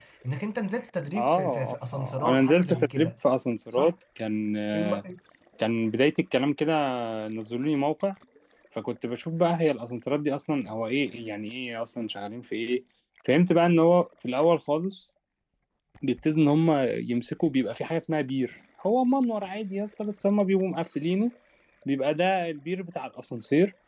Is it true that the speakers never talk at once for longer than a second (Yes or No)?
No